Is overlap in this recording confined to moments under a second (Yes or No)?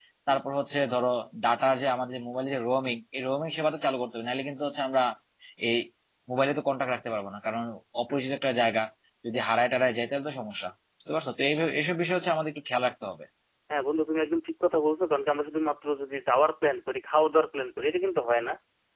Yes